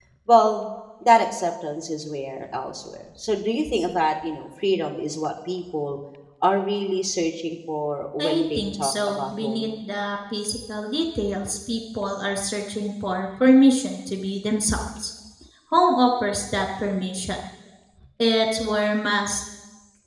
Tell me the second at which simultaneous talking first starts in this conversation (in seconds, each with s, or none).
8.2 s